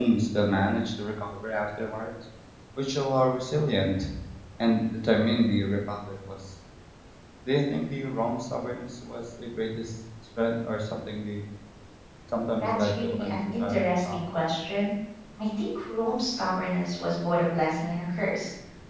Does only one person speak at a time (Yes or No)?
No